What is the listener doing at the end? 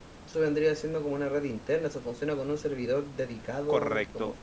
taking over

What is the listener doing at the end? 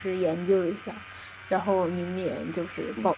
taking over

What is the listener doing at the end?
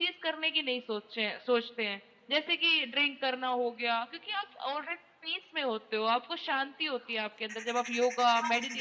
taking over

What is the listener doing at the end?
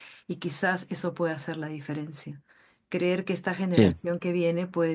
listening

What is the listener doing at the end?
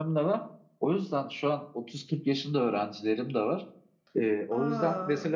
listening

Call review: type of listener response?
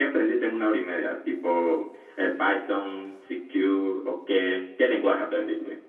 taking over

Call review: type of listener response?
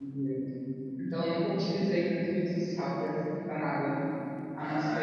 taking over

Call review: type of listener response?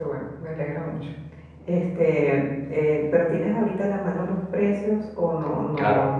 taking over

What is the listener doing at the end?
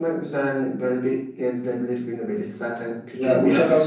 taking over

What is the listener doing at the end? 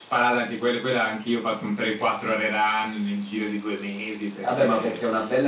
taking over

